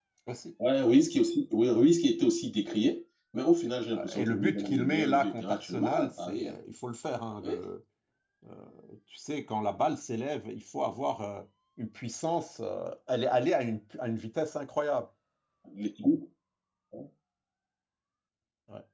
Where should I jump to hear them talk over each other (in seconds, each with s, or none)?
3.9 s